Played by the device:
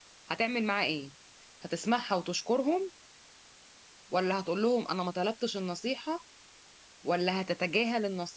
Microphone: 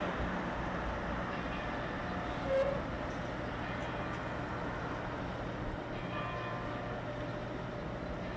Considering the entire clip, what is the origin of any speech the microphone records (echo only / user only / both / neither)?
neither